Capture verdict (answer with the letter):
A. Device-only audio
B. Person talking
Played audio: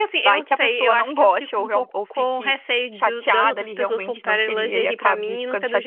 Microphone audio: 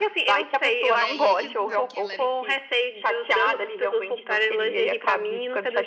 B